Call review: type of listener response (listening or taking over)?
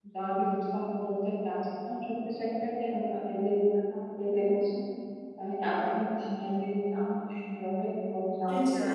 taking over